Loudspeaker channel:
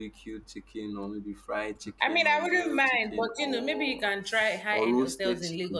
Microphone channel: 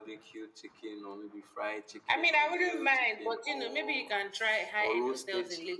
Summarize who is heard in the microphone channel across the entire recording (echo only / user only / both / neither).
echo only